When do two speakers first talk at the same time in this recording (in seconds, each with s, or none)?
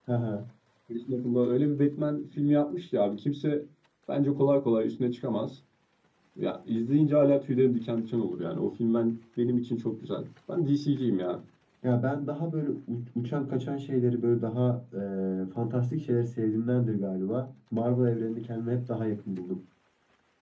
none